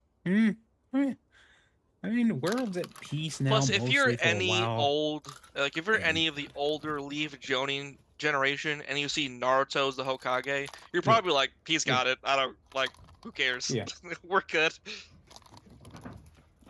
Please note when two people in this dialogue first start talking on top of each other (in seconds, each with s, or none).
3.5 s